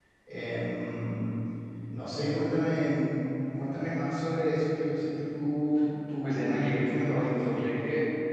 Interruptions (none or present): present